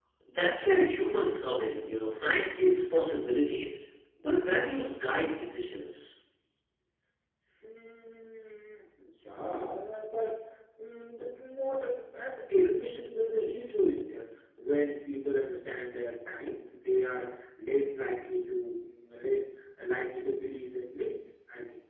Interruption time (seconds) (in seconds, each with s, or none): none